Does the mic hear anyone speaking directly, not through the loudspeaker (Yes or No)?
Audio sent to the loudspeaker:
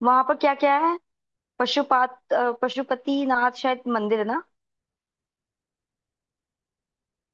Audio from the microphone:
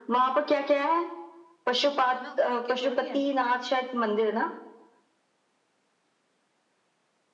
Yes